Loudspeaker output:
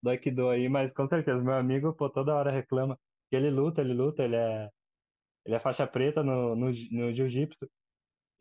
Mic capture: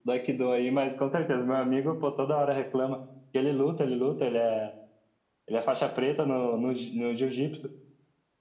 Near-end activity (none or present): none